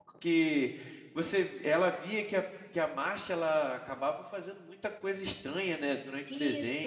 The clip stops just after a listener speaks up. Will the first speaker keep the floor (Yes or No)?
No